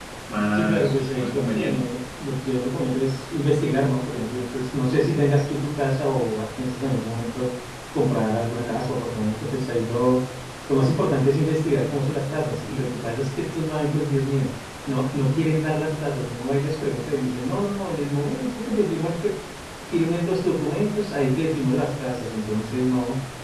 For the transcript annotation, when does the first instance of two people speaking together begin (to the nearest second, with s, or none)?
1 s